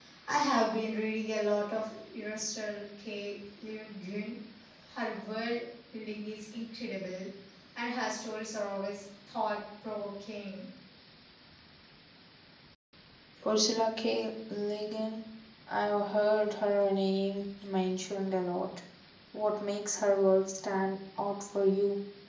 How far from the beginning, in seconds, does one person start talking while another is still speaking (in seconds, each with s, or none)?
none